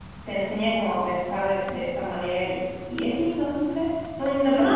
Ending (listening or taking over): taking over